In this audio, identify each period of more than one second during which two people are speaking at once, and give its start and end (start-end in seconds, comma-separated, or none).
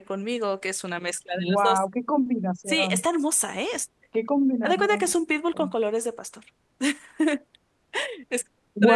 none